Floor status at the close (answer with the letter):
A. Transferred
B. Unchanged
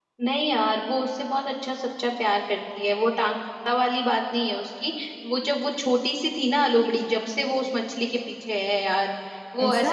B